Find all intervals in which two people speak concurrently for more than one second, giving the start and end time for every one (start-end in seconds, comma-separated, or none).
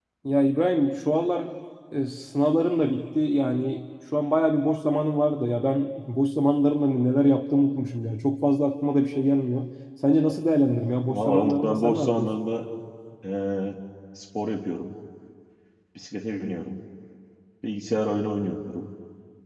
11.1-12.3